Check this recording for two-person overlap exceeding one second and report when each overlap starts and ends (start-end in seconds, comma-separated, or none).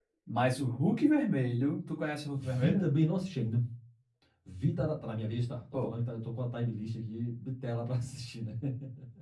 none